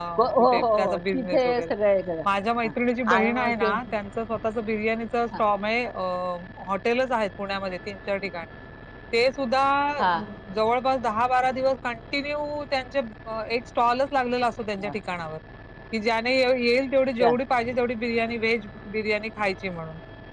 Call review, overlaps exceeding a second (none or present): present